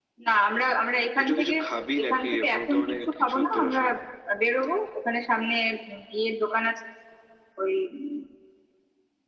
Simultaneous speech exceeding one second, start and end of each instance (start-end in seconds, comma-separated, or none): 2.0-3.8